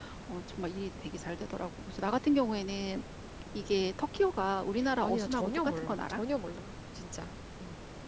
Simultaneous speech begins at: 4.8 s

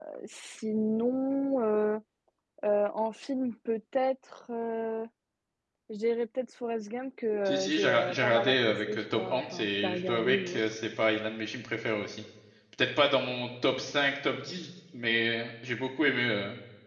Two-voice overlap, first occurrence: 7.5 s

